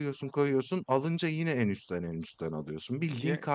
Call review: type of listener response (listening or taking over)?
listening